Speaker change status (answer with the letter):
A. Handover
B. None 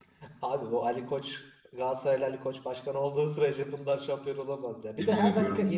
B